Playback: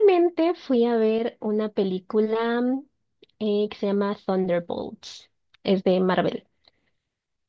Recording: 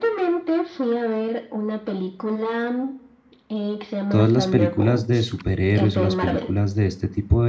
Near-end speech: present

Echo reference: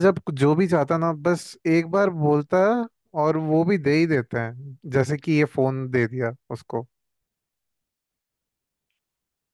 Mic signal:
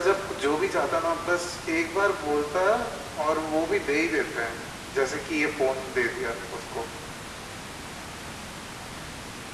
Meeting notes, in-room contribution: none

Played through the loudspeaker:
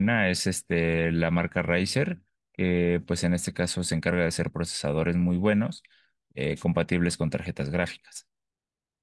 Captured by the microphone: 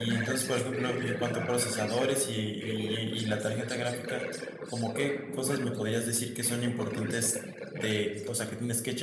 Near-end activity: present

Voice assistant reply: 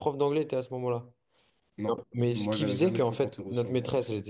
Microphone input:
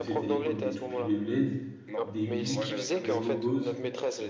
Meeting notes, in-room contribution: present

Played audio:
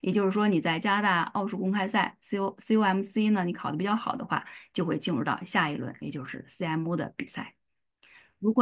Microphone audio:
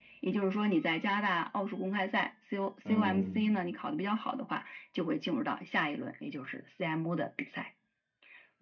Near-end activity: present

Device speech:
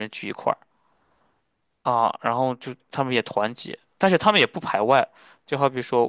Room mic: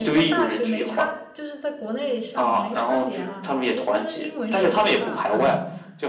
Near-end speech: present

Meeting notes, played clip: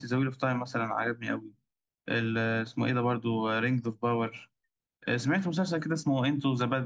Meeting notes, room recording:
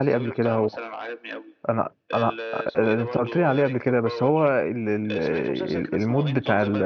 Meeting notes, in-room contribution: present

